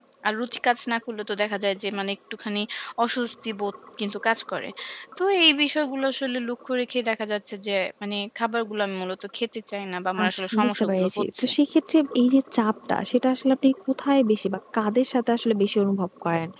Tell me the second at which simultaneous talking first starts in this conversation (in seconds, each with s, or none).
10.2 s